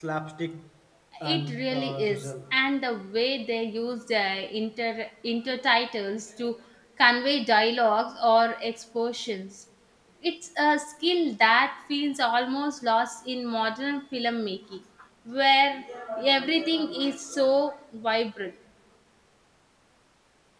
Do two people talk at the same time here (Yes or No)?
Yes